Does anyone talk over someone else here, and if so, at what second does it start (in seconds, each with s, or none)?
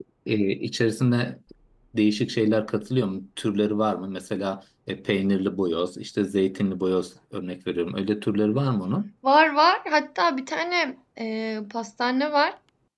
none